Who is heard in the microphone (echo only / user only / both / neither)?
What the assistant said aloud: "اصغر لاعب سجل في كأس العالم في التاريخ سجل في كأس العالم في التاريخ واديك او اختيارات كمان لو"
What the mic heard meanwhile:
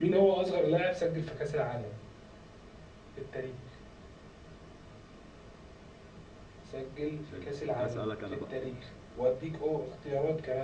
both